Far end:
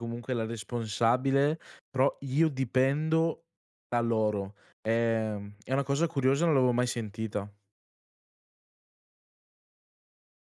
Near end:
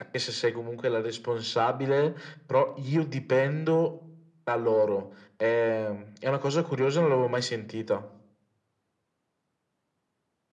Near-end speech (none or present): none